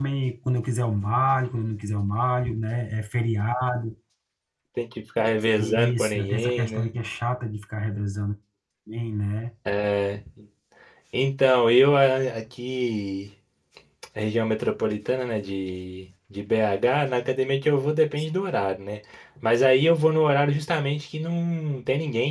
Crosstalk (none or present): present